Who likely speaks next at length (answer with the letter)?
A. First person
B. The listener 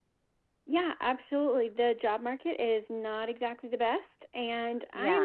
A